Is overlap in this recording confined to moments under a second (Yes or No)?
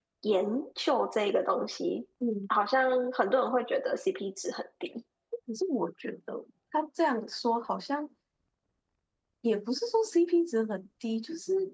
Yes